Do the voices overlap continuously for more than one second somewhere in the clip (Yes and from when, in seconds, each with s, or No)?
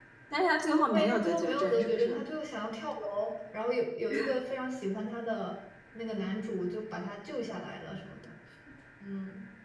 Yes, from 0.9 s